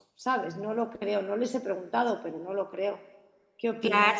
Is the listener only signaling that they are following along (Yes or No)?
No